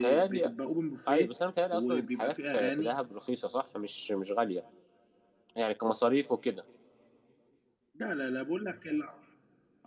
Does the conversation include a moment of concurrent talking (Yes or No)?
Yes